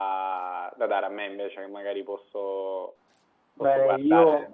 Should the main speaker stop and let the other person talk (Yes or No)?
Yes